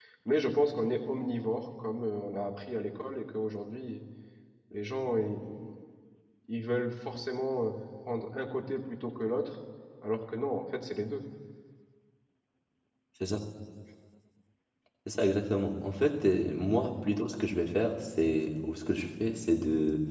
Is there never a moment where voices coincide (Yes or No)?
Yes